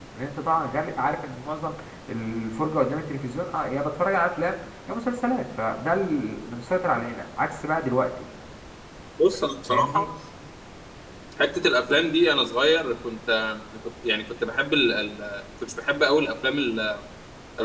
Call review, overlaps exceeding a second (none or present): none